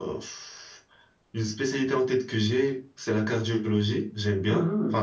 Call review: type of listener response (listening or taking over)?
taking over